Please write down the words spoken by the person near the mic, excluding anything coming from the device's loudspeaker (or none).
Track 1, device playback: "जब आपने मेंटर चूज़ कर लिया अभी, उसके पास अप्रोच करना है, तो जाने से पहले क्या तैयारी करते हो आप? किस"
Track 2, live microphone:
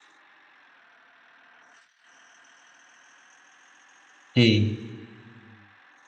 जी,